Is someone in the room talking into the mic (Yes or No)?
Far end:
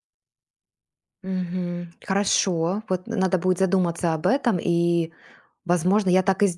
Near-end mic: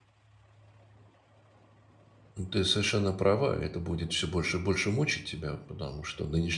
Yes